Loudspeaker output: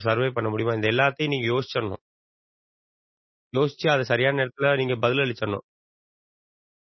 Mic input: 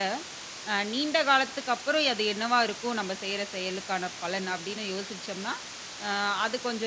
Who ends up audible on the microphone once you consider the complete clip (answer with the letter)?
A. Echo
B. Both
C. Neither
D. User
D